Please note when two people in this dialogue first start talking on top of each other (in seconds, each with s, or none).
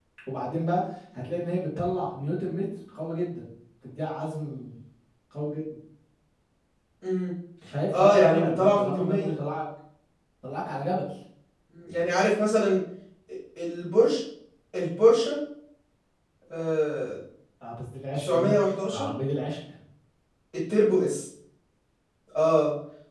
8.0 s